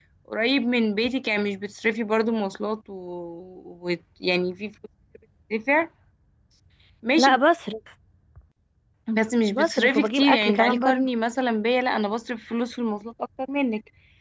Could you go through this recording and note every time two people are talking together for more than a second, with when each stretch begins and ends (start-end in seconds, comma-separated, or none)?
9.5-11.0